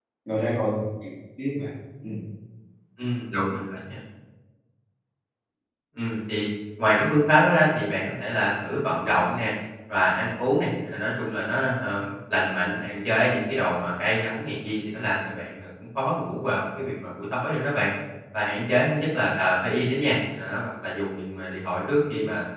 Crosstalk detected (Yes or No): No